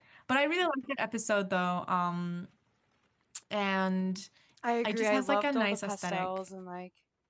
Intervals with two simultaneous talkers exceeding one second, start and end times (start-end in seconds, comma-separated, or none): 4.8-6.3